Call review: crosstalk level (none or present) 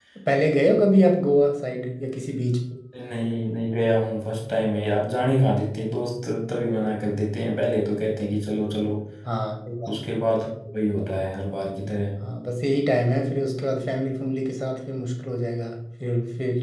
none